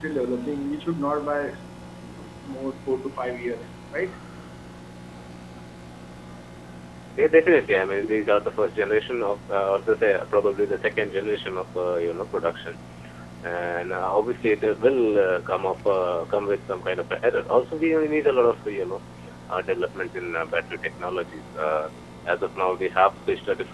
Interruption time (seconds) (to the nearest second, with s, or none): none